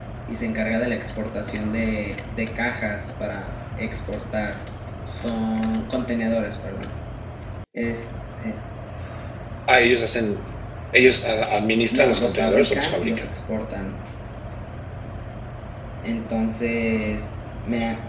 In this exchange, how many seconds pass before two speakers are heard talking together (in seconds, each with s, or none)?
11.9 s